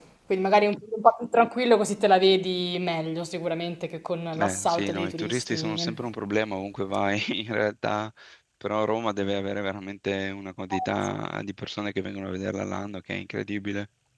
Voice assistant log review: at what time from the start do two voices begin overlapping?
4.3 s

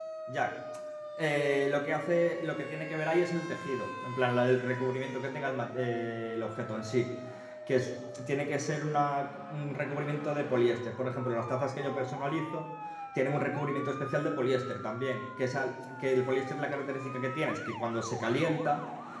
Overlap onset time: none

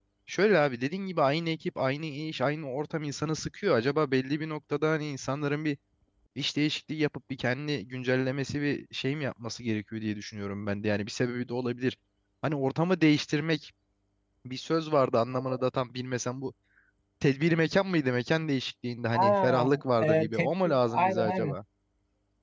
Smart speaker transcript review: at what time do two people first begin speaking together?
19.1 s

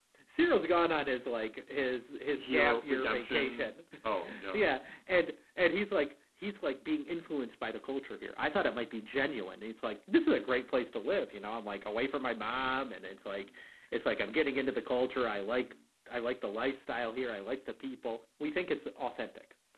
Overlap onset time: 2.4 s

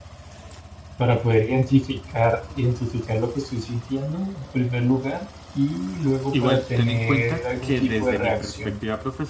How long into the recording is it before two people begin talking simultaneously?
6.3 s

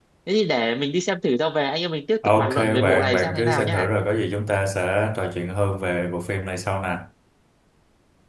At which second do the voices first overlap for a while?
2.2 s

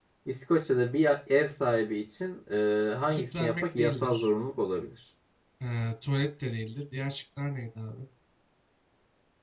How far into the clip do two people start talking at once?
3.0 s

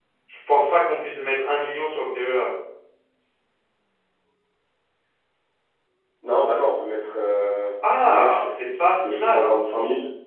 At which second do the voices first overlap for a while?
7.8 s

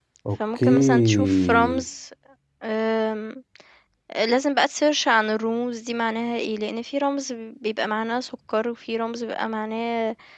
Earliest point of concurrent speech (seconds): 0.6 s

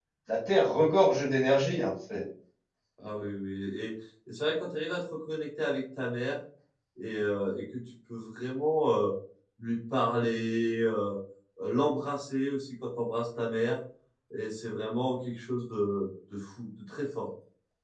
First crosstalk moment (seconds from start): none

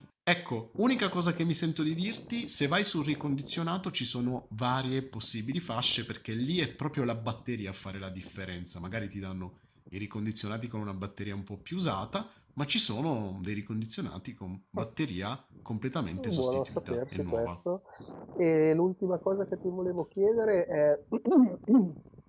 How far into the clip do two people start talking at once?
16.2 s

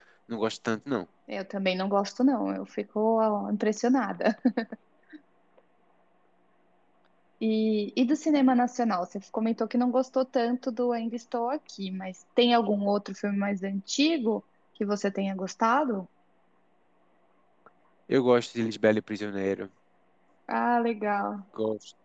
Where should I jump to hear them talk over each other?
none

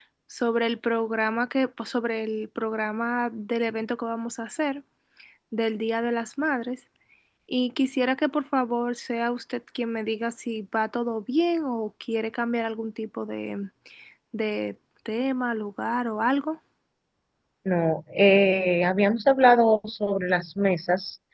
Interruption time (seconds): none

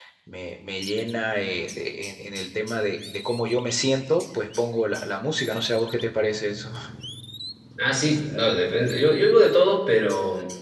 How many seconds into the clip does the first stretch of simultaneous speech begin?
none

